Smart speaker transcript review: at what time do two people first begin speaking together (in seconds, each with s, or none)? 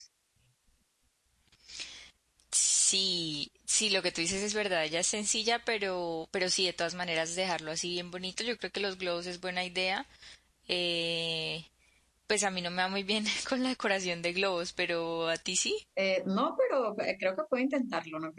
none